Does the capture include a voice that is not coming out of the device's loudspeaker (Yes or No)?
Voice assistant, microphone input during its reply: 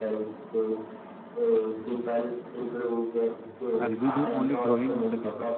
Yes